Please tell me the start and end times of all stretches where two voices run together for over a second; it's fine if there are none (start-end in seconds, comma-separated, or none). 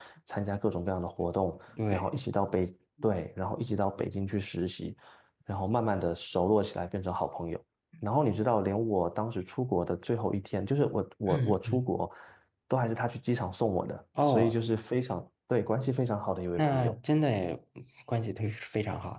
none